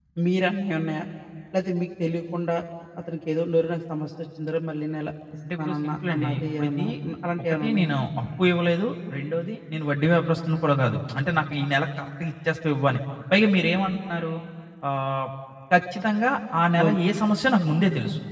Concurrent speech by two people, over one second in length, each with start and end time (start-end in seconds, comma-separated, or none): 5.6-6.8